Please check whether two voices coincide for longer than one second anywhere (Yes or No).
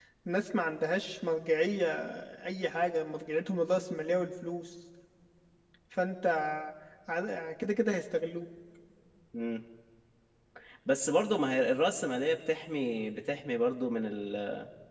No